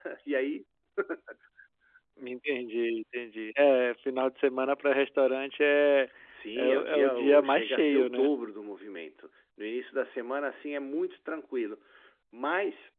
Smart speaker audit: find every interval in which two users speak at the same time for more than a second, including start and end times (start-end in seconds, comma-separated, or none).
6.5-8.3